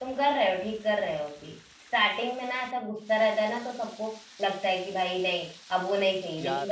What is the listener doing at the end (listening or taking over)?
listening